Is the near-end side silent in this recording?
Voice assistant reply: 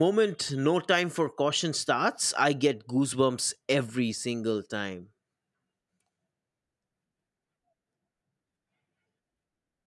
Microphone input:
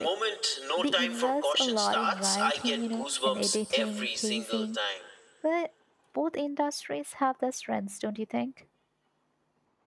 No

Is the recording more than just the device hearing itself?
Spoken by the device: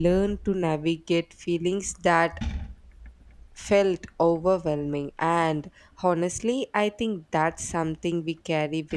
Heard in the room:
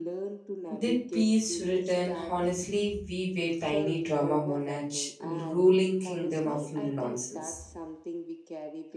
Yes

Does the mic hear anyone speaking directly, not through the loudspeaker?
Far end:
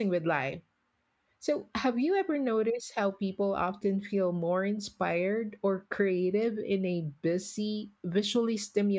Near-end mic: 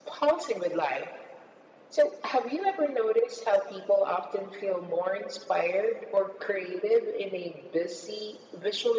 No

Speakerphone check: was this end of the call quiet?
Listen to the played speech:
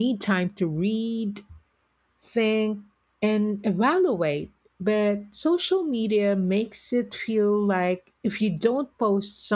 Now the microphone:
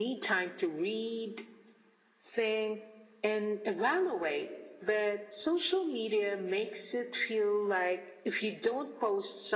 Yes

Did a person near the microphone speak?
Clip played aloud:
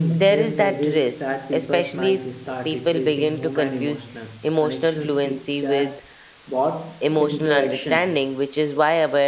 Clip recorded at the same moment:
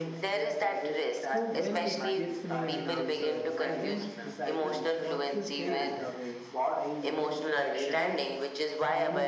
Yes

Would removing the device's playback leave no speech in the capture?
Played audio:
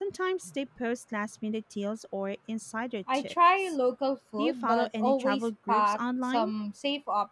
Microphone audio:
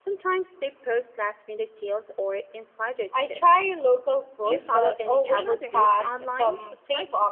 No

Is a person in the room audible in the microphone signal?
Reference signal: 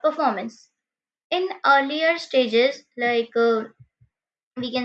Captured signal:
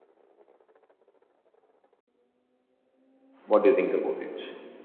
Yes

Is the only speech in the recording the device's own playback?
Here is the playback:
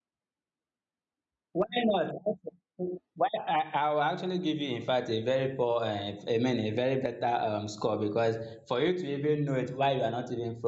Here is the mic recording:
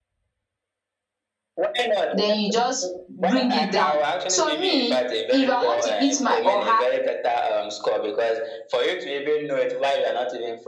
No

